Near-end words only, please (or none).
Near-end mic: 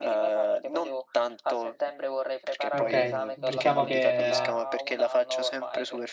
Ok, diciamo che,